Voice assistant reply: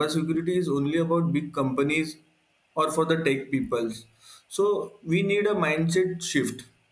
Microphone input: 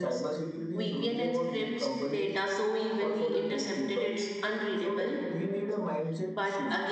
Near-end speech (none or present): present